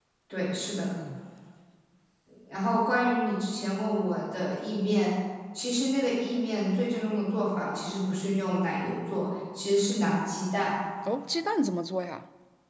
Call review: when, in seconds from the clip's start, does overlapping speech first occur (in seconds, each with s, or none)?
none